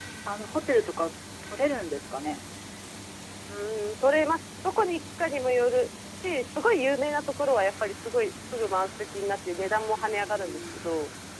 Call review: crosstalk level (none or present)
present